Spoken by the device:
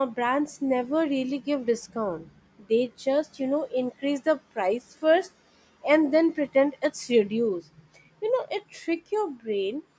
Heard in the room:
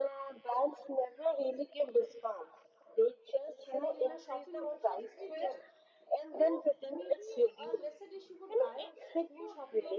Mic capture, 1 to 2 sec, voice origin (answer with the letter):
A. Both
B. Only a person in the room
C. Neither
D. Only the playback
D